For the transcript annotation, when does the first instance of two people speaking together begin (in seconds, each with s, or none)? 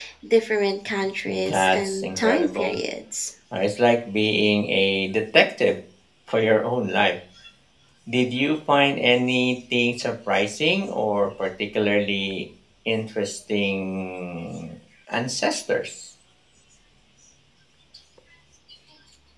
1.3 s